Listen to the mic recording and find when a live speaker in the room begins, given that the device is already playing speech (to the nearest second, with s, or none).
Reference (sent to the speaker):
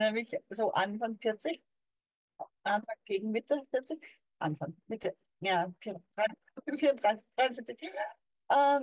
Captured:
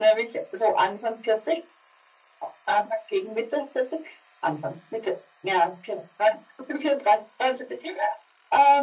none